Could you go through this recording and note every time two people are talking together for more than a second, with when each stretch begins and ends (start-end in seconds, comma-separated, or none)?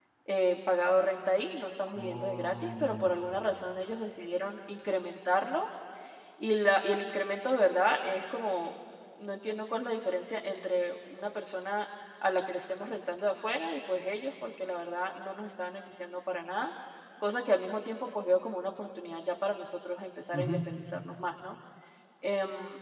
2.0-3.4